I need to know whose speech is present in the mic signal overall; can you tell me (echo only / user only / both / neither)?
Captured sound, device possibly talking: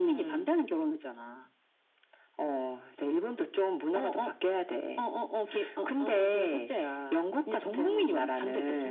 echo only